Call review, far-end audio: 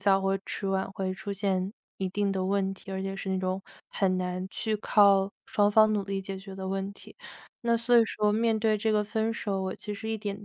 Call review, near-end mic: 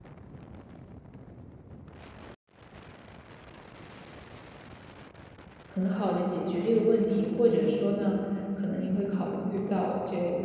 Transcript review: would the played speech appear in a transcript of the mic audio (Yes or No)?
No